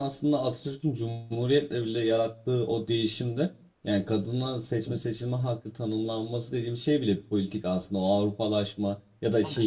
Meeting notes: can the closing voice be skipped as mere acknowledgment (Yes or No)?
Yes